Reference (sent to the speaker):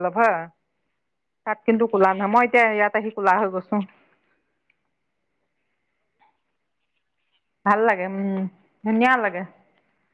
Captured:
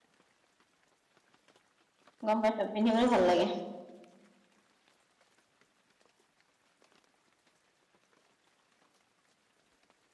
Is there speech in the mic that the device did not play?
Yes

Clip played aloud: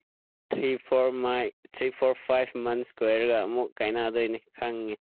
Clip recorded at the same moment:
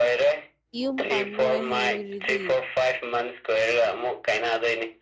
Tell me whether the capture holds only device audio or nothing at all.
No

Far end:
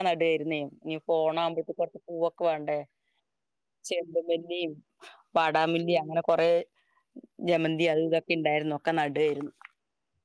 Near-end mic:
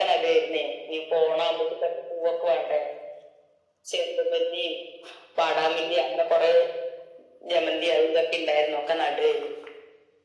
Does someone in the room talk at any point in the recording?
No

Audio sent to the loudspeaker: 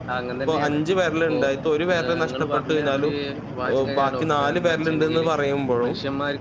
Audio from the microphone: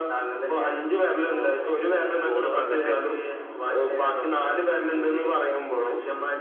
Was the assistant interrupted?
Yes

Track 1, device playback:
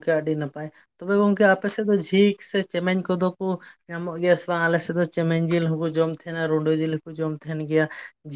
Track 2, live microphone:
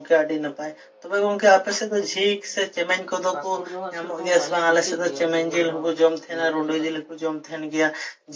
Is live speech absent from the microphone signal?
No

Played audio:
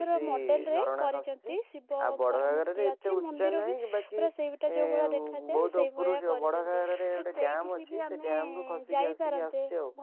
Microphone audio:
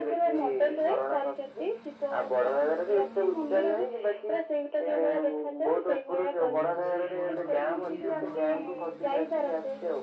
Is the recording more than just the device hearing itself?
Yes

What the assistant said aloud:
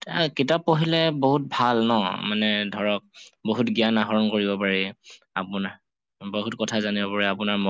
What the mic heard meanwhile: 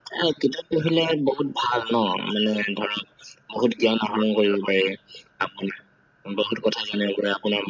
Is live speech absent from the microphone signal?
Yes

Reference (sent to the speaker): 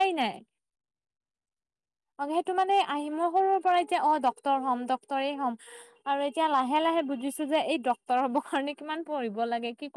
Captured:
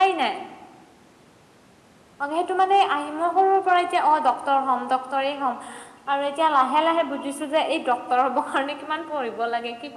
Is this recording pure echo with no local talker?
Yes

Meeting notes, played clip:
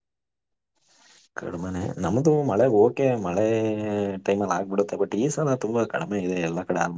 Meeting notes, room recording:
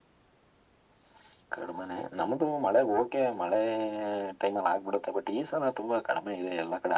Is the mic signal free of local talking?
Yes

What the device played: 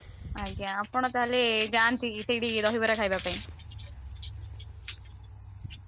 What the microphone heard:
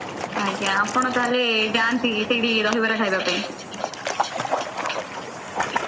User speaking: No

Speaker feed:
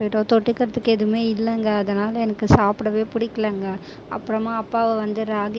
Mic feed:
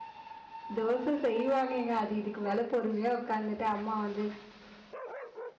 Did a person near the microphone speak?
Yes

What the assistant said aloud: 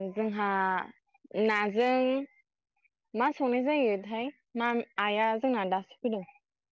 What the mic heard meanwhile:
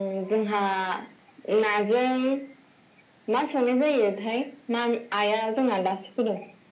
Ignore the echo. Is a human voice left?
No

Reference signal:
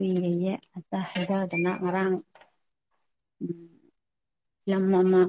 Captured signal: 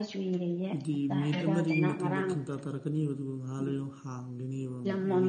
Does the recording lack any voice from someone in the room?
No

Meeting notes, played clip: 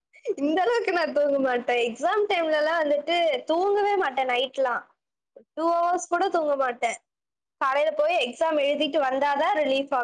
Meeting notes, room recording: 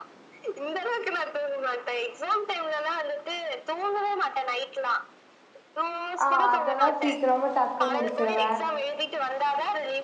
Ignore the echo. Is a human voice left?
Yes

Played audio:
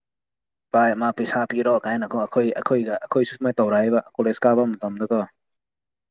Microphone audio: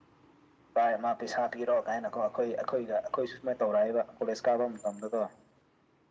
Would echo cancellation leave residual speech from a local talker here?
No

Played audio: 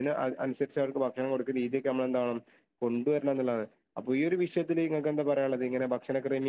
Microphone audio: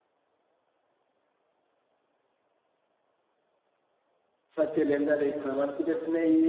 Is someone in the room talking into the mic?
Yes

